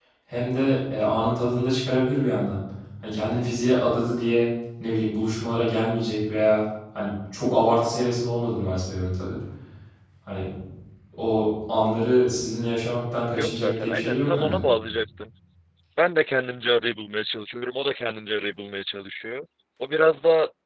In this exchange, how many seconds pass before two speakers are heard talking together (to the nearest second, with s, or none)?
13 s